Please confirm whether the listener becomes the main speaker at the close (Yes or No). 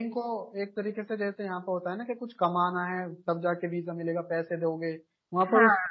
No